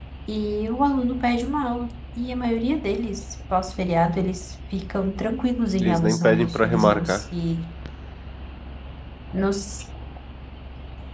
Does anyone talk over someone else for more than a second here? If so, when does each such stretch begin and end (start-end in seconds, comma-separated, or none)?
5.8-7.2